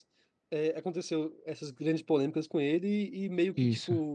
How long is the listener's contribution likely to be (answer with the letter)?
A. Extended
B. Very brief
B